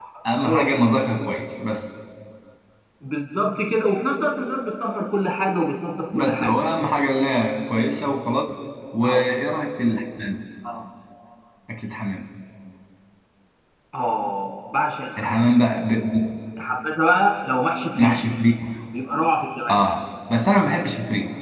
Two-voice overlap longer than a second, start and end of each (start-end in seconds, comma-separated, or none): none